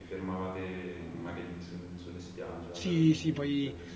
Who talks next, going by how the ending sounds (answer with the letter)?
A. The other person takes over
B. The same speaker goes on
A